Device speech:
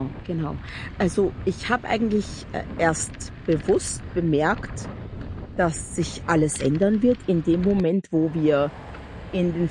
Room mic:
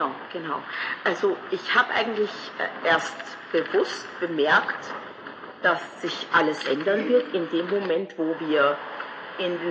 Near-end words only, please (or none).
Okay.